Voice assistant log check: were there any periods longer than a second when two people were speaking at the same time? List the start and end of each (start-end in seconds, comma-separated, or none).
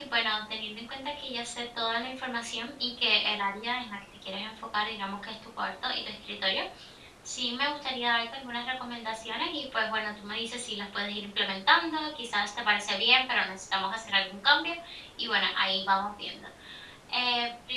none